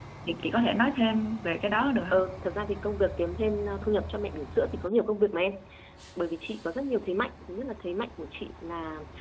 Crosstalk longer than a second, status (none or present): none